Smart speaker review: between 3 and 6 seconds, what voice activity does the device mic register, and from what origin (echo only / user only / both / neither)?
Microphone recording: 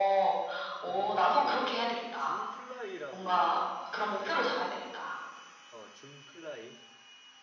both